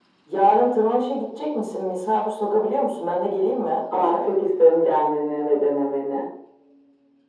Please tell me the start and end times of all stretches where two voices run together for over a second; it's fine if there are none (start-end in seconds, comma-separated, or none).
none